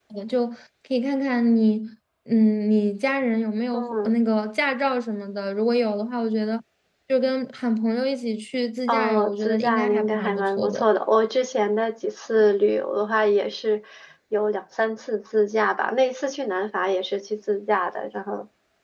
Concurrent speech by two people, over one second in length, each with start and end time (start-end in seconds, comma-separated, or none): 8.9-10.9